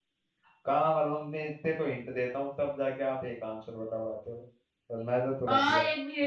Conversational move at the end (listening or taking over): taking over